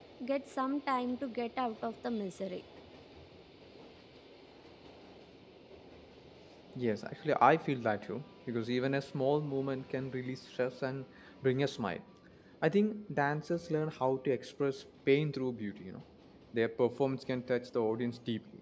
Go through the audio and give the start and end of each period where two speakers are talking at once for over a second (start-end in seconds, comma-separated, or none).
none